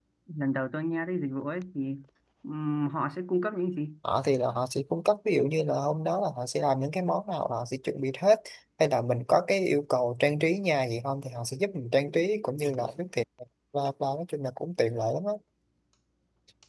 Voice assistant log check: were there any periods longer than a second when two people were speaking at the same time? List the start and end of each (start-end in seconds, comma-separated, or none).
none